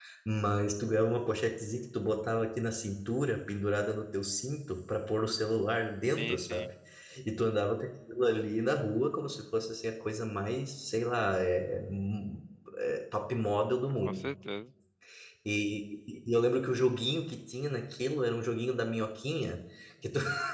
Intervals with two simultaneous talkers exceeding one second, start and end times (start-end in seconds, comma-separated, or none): none